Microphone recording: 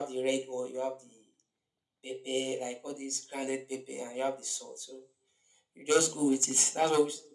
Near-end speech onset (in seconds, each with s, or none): none